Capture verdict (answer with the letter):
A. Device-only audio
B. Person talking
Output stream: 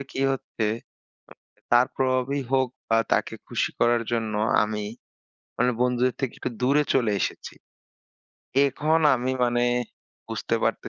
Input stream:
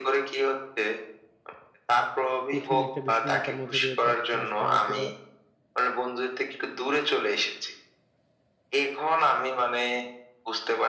B